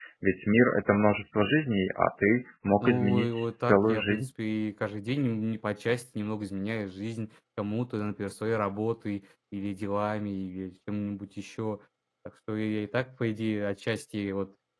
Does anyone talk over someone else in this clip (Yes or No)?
Yes